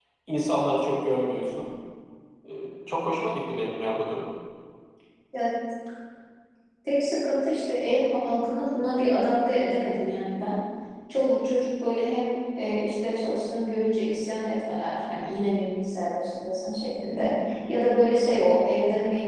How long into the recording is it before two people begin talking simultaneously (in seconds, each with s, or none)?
none